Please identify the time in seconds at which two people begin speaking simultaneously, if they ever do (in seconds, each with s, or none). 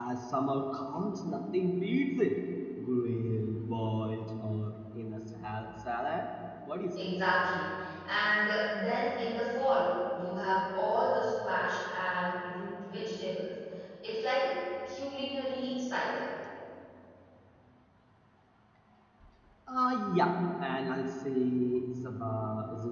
none